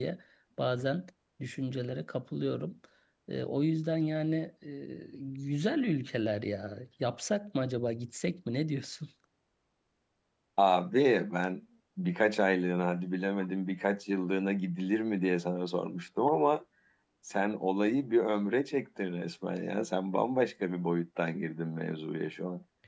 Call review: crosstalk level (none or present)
none